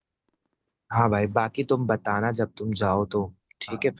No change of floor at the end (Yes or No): No